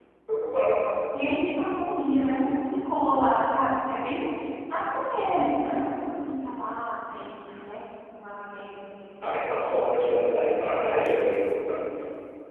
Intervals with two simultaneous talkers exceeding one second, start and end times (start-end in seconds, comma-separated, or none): none